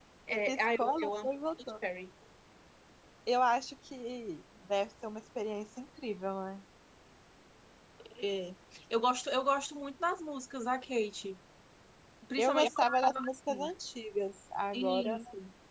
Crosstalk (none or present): present